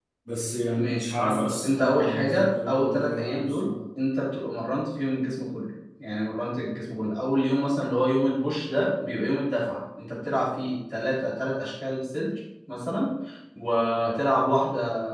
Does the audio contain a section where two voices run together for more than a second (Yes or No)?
Yes